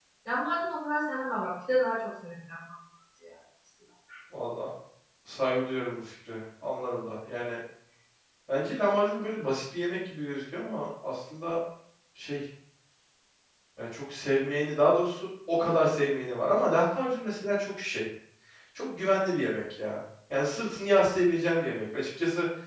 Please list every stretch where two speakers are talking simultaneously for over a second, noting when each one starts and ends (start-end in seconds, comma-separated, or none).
none